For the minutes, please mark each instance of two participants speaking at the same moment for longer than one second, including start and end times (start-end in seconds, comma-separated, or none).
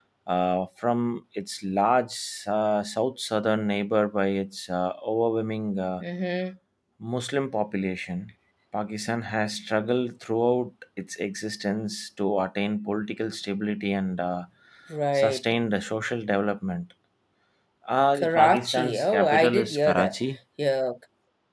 18.1-20.1